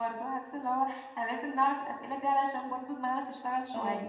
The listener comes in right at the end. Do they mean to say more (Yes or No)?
Yes